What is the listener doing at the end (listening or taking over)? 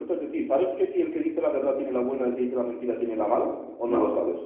taking over